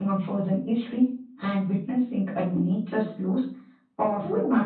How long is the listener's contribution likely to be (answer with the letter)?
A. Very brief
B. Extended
B